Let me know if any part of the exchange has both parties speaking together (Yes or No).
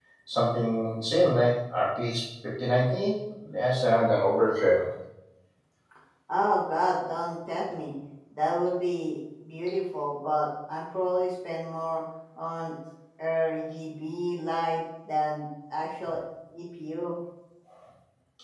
No